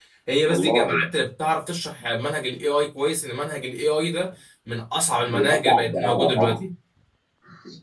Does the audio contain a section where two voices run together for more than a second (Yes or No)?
Yes